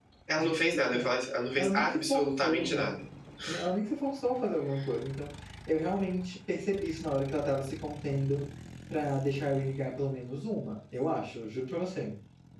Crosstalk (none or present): present